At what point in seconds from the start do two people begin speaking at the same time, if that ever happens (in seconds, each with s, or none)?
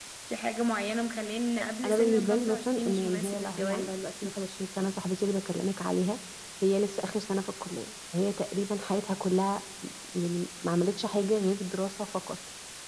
1.8 s